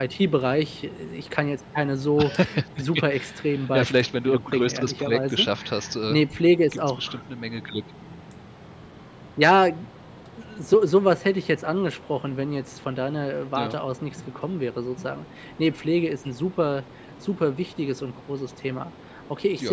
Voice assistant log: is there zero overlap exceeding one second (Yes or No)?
No